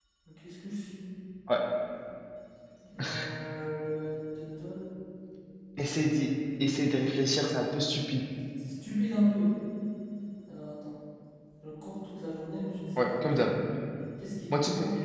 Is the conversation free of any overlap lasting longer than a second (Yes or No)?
Yes